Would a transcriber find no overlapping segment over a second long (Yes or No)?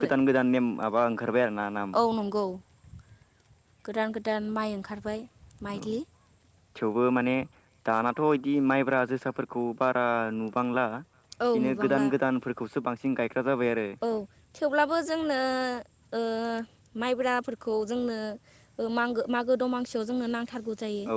Yes